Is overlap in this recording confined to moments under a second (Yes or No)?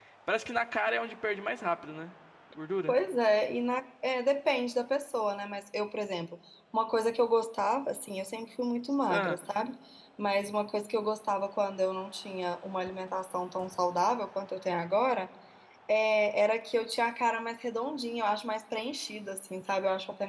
Yes